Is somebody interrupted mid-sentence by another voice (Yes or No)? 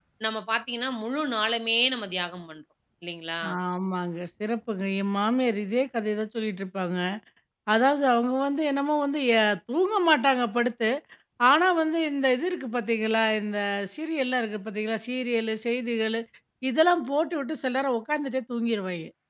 No